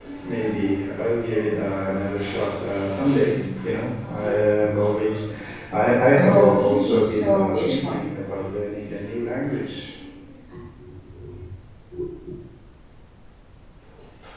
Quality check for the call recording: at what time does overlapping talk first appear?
6.1 s

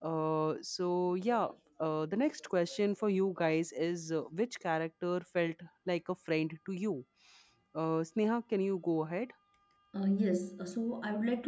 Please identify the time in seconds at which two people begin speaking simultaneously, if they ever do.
none

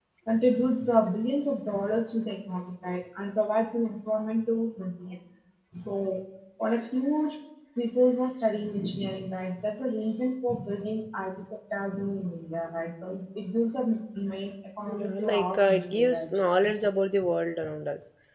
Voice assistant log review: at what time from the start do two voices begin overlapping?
14.9 s

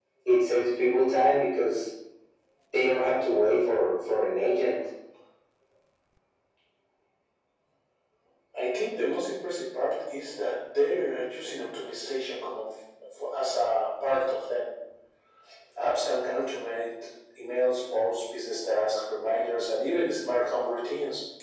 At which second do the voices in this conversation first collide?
none

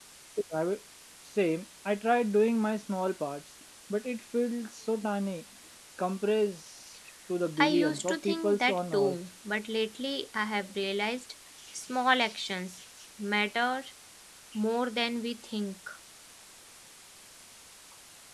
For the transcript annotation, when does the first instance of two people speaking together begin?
7.6 s

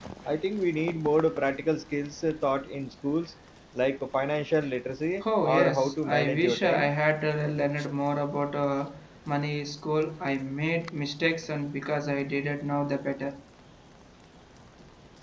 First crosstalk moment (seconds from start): 5.2 s

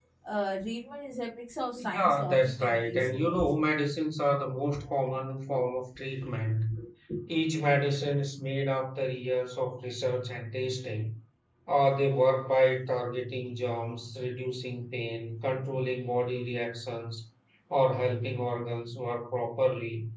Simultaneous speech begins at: 1.8 s

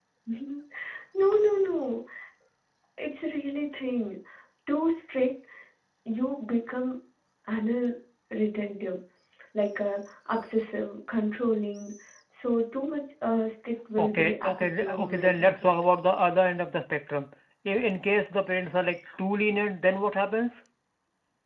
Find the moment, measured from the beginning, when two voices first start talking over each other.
14.0 s

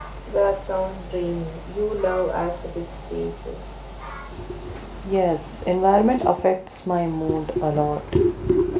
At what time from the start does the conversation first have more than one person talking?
none

